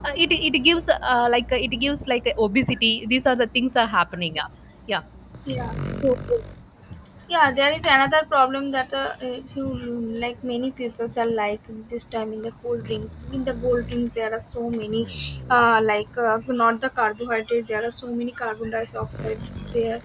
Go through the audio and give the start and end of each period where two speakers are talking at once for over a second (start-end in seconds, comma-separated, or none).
none